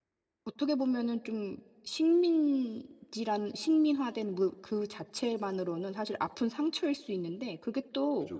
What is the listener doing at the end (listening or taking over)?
listening